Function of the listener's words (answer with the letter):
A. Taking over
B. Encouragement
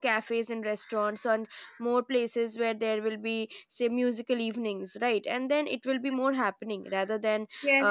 A